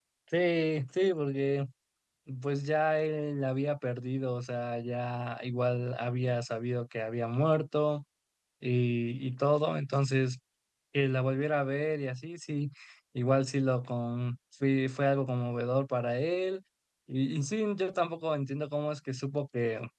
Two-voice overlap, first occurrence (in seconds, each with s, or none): none